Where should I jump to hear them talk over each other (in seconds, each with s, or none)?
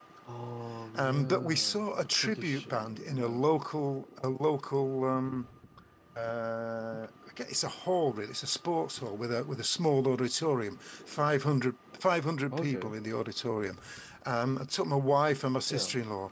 0.9 s